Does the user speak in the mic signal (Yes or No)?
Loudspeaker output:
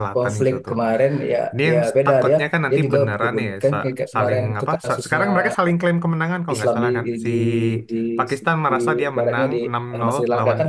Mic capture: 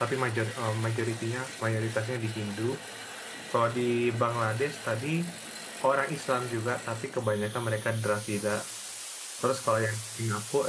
Yes